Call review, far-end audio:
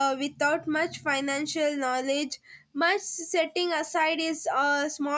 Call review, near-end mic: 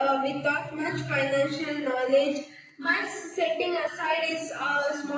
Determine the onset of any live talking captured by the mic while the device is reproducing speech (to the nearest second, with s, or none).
none